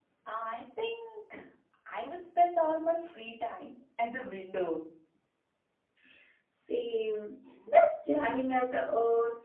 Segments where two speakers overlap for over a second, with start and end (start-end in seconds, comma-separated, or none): none